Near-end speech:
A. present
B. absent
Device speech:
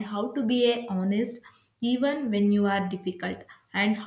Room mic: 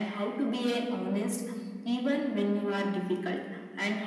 B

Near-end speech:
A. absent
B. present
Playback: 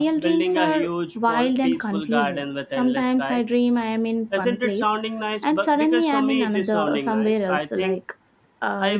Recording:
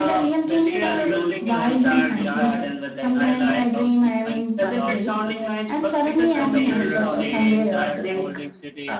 B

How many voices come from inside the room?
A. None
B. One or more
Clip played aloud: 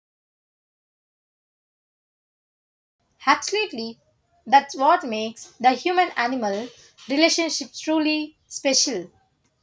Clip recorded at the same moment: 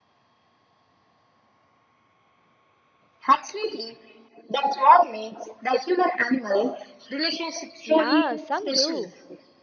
B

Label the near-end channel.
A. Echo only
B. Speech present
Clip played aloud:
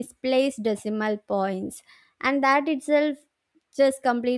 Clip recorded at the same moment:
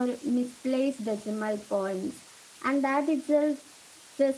A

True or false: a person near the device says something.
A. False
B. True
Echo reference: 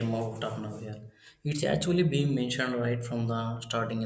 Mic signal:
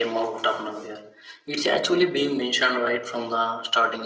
A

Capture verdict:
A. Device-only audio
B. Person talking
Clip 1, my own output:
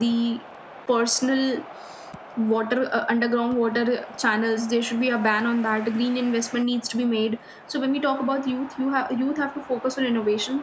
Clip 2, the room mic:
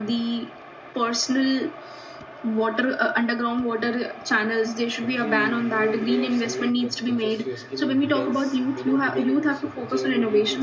B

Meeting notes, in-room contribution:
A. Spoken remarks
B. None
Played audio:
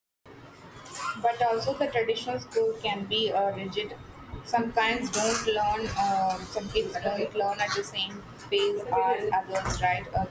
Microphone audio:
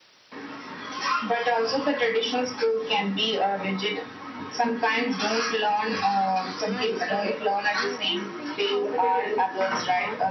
A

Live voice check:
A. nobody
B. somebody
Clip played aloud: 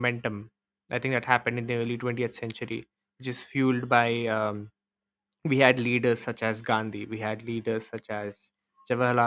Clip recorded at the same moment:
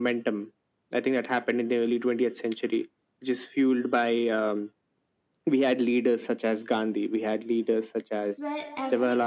B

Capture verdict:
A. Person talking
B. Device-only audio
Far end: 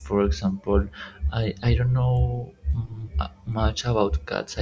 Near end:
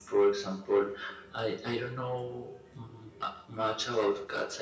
B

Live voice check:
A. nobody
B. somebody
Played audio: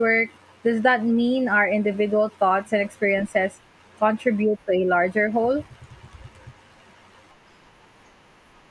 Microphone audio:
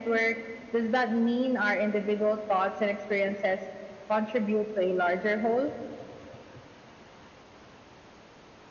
A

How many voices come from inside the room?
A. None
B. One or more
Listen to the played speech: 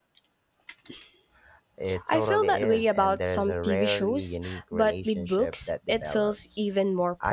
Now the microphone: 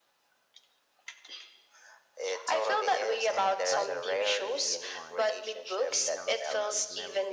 B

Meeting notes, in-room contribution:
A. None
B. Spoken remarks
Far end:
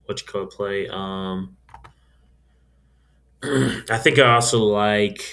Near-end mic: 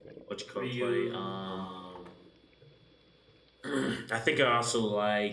B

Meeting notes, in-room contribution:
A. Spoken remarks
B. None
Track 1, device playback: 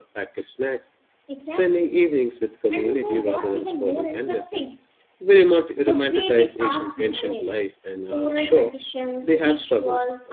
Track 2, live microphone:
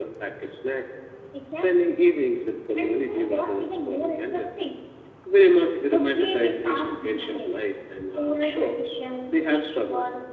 B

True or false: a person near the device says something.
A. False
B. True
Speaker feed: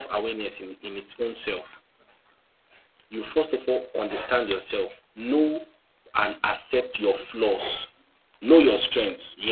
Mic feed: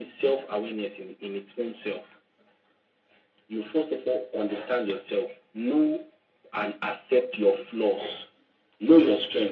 A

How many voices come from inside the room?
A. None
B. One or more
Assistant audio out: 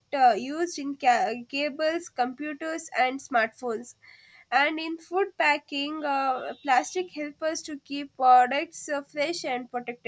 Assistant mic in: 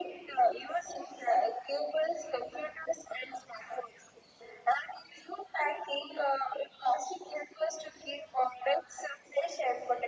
A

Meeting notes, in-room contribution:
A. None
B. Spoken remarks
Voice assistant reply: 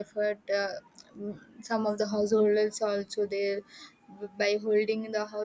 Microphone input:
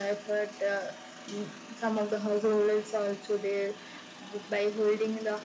A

